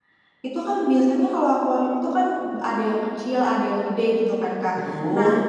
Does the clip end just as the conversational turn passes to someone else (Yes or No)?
No